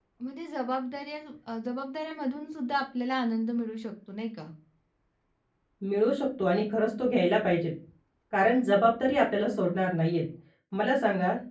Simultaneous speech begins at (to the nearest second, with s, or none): none